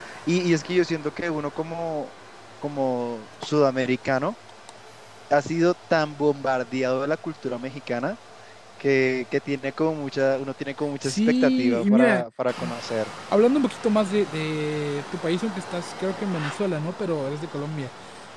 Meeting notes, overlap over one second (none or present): present